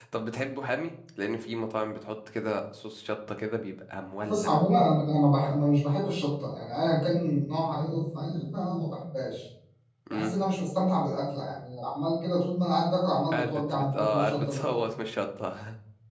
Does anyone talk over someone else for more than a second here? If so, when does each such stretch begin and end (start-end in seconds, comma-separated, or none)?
13.3-14.8